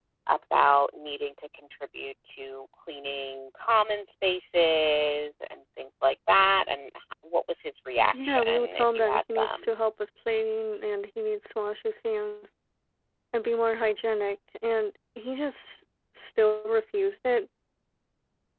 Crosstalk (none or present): present